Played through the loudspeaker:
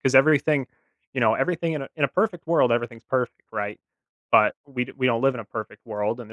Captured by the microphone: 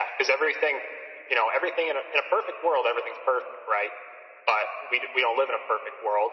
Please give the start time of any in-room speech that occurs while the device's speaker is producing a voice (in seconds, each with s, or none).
none